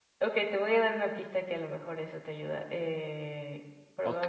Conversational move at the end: taking over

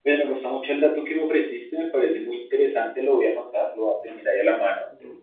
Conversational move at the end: listening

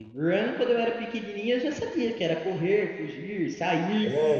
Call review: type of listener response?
listening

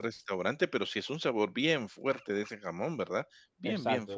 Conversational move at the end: taking over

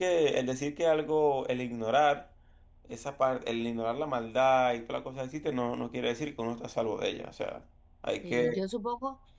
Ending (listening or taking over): taking over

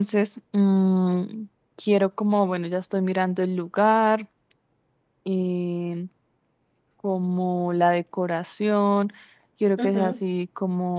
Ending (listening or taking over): listening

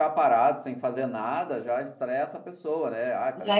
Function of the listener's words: taking over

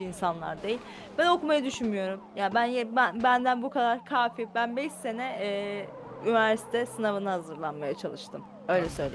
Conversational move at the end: taking over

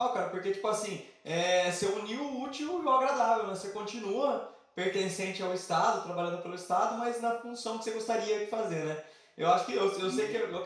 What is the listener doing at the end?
listening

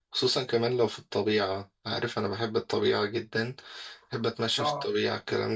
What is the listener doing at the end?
listening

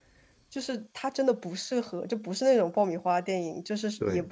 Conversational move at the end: listening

